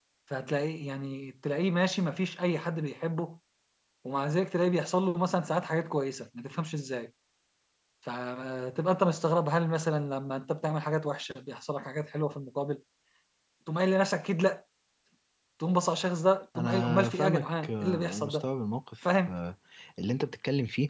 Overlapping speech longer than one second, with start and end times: 16.6-18.4

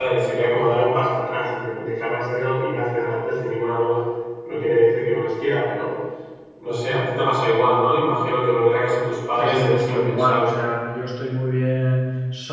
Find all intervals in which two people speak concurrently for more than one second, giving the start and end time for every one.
9.4-10.6

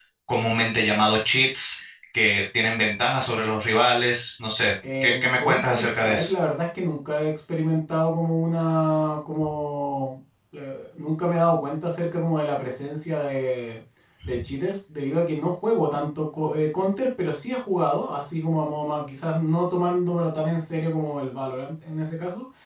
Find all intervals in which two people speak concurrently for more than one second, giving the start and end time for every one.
5.0-6.3

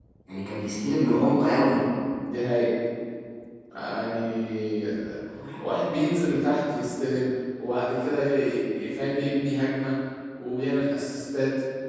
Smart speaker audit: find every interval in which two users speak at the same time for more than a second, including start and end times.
none

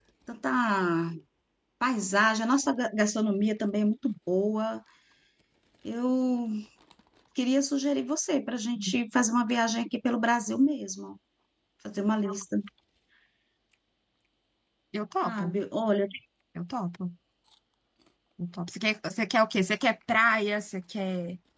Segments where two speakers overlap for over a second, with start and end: none

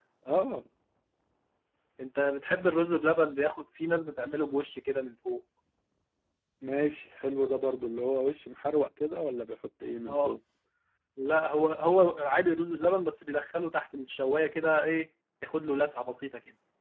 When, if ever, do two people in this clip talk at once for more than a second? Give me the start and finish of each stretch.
none

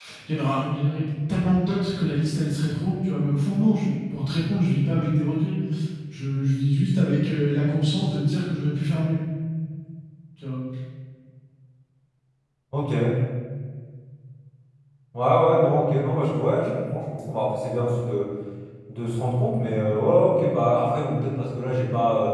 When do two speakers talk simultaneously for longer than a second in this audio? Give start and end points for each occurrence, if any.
none

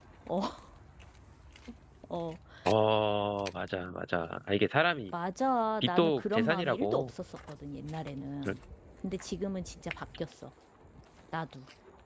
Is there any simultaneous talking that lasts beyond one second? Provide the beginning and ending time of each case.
5.8-7.1

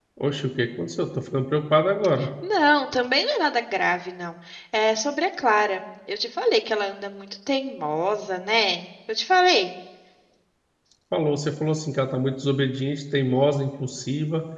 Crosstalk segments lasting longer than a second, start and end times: none

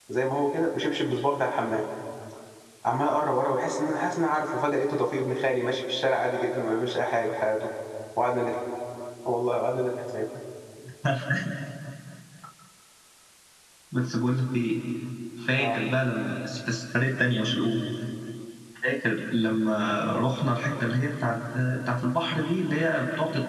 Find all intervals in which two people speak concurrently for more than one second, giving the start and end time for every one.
none

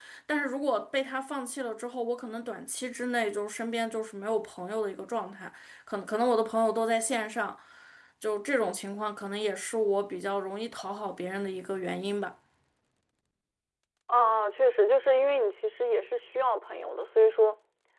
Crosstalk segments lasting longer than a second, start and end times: none

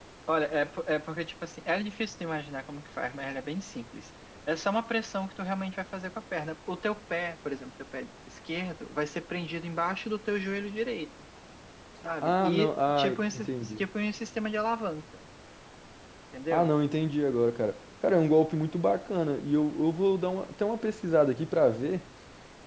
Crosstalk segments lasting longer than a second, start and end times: 12.2-13.8

